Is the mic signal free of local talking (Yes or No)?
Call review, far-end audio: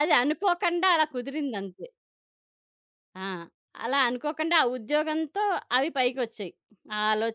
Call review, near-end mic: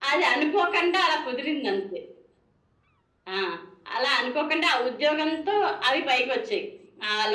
Yes